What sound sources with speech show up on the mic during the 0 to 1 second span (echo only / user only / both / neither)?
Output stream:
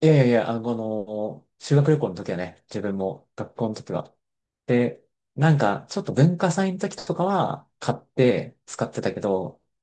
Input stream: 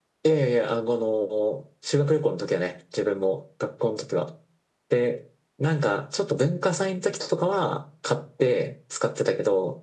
echo only